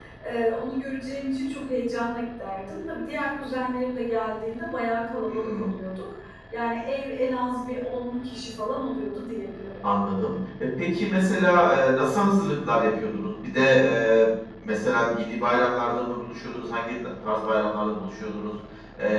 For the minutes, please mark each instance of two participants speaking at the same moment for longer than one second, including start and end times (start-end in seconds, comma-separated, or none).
none